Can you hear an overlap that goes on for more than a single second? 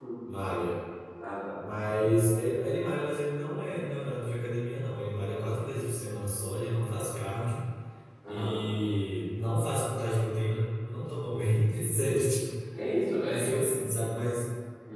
No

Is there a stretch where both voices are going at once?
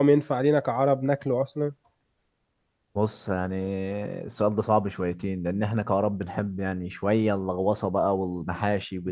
No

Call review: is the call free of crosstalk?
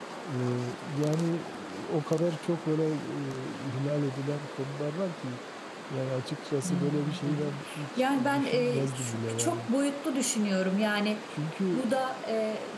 No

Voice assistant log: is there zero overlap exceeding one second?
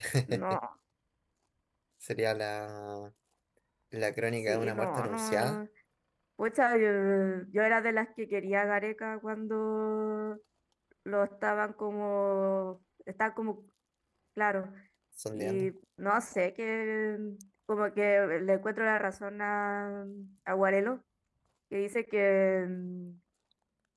No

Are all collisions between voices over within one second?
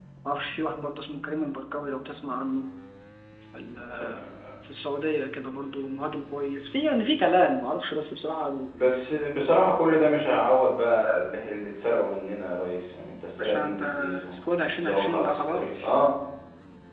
No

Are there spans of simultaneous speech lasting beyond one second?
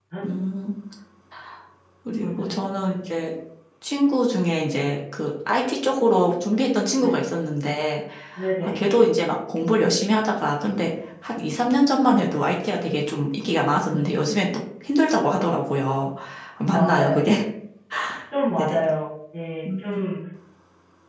No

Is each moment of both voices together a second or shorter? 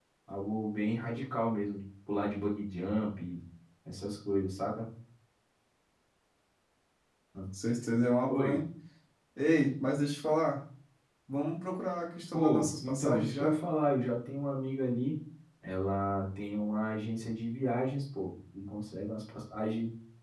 No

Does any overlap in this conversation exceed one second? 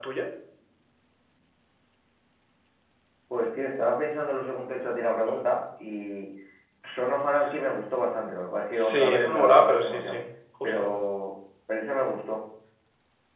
Yes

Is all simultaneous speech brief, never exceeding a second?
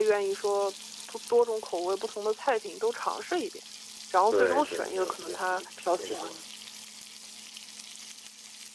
No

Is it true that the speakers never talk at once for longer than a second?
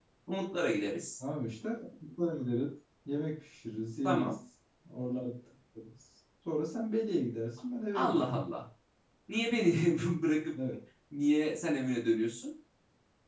Yes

